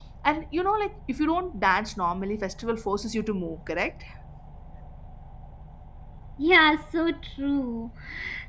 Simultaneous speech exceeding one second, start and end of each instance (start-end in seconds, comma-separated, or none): none